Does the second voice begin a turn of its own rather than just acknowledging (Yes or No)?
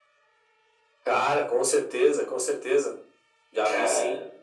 No